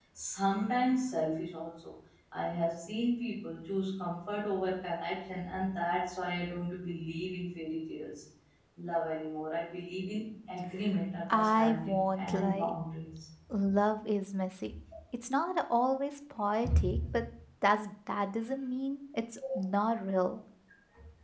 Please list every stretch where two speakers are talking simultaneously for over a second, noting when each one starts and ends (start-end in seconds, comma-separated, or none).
11.3-12.7